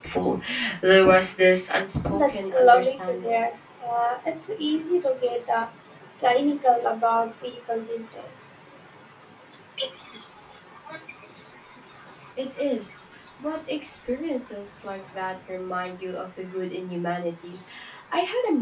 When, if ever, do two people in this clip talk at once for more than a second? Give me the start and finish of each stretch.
2.1-3.4

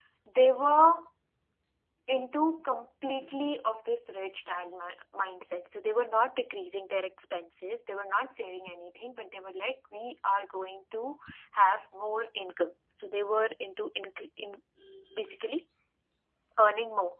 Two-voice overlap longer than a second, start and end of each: none

